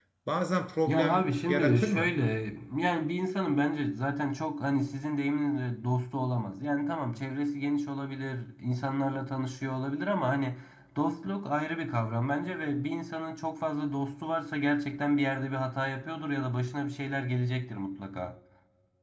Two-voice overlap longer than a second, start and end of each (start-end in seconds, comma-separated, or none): 0.8-2.1